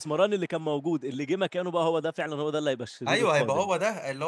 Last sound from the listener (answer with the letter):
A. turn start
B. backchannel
A